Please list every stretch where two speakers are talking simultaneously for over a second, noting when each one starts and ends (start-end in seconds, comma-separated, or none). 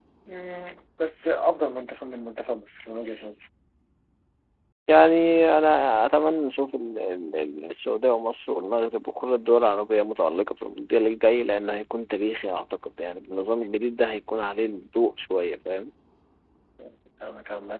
none